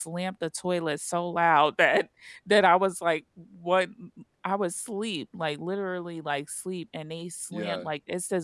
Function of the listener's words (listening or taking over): listening